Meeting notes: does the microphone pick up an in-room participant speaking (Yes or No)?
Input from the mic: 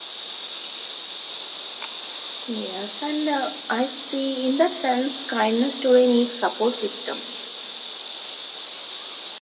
Yes